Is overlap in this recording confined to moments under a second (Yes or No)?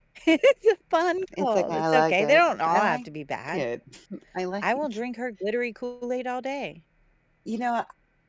No